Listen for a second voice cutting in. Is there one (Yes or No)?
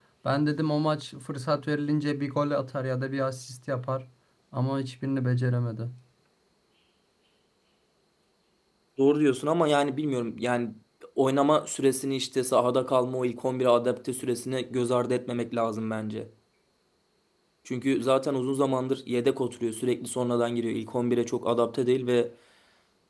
No